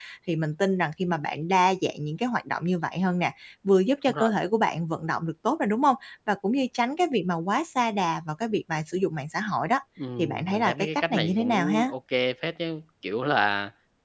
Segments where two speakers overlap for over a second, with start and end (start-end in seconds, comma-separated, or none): 10.2-11.9